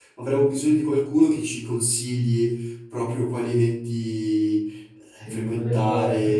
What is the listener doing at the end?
taking over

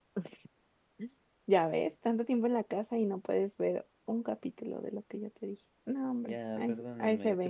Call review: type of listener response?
taking over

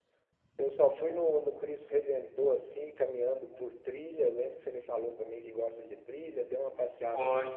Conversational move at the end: listening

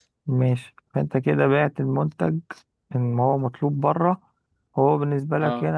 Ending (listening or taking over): listening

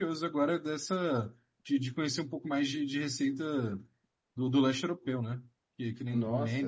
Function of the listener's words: taking over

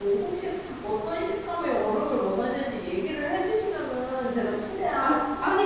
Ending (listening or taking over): taking over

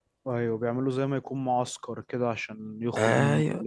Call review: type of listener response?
taking over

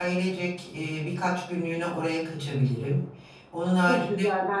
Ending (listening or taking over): taking over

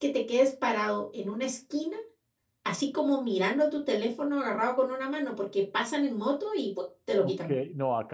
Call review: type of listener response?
taking over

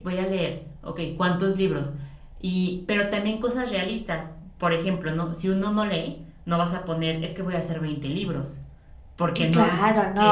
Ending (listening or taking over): taking over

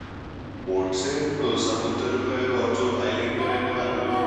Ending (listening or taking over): taking over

